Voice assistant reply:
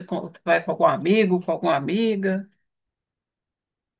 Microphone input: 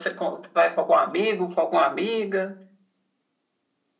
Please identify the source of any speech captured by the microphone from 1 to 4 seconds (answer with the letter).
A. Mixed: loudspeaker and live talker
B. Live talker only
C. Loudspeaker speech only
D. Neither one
C